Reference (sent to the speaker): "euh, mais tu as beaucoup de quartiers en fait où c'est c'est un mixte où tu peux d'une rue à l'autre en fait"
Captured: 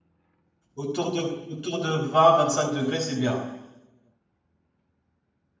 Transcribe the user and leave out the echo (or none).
Autour de, autour de 20-25 degrés, c'est bien.